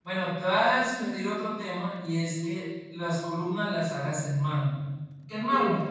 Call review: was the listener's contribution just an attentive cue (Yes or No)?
Yes